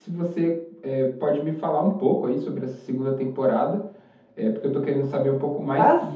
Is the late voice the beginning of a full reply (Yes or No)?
No